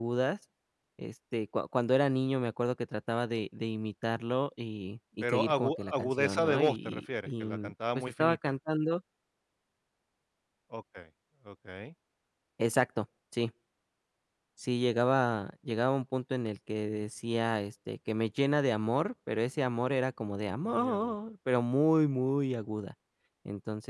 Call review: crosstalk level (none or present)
present